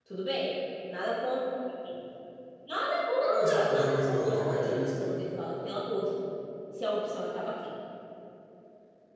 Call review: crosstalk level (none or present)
present